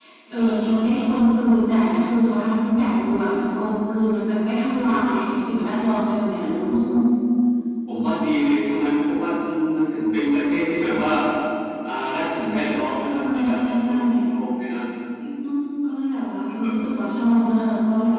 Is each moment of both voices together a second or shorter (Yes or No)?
No